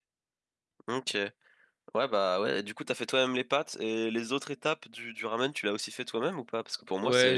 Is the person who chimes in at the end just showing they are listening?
Yes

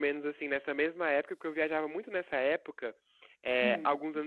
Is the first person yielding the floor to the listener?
No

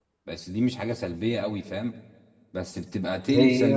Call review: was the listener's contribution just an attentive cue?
Yes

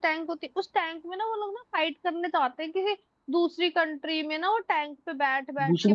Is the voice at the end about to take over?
Yes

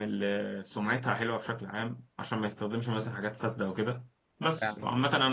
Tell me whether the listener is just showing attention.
Yes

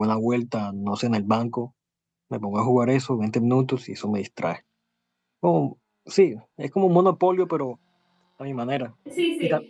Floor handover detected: Yes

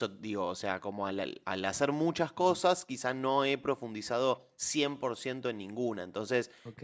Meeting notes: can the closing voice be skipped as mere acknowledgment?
No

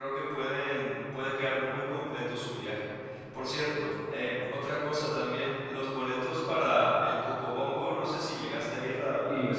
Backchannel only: No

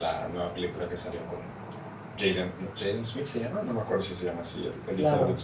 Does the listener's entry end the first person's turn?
Yes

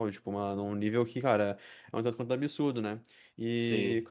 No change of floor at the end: Yes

